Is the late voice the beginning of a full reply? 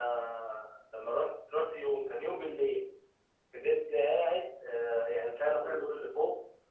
No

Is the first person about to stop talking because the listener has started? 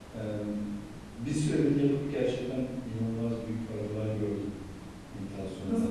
Yes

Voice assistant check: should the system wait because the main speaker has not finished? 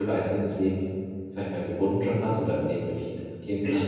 No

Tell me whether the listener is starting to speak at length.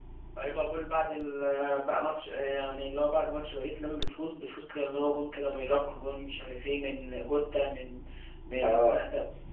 No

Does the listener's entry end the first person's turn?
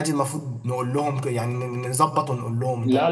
Yes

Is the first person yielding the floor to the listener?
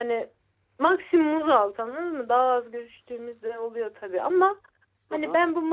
No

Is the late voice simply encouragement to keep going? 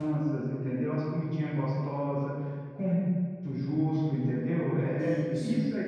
Yes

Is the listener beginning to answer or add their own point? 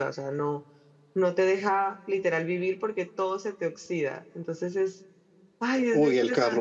Yes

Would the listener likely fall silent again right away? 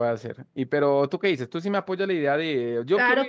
No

